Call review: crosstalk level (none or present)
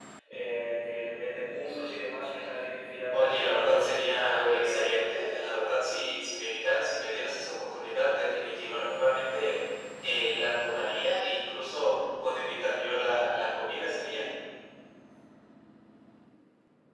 present